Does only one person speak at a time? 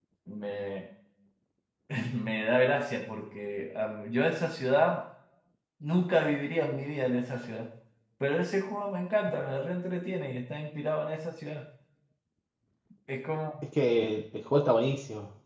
Yes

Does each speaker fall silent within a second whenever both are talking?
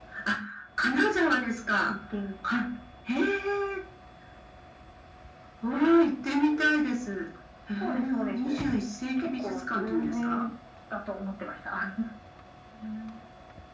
No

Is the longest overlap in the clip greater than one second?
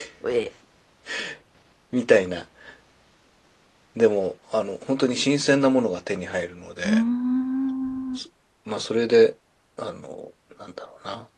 No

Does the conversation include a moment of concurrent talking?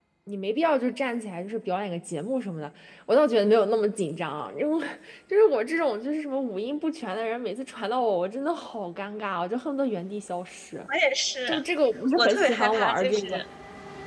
Yes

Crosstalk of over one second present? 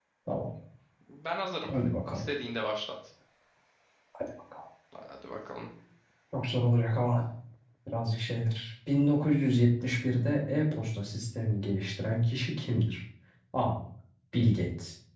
No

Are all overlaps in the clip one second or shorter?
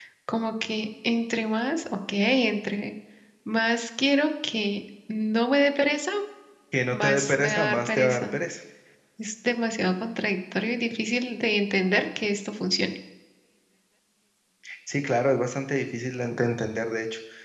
No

